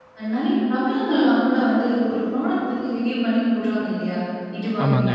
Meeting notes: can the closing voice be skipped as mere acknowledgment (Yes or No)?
Yes